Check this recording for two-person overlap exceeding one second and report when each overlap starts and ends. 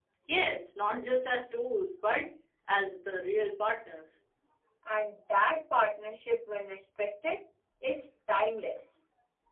none

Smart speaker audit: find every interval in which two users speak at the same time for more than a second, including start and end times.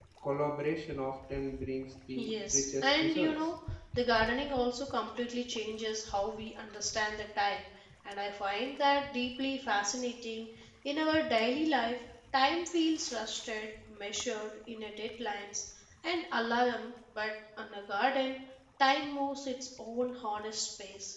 2.2-3.5

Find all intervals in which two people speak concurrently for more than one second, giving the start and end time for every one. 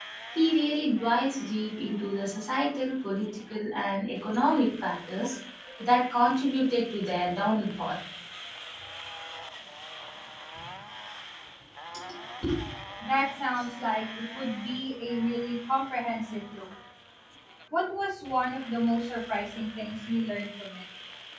none

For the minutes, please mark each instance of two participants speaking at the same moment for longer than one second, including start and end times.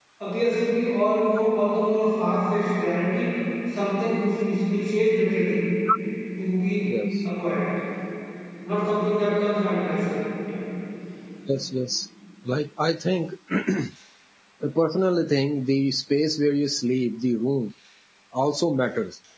none

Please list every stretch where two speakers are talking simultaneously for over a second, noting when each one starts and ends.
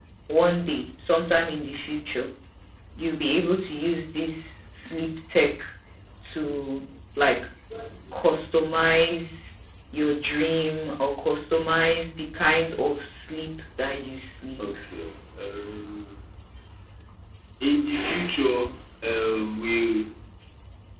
none

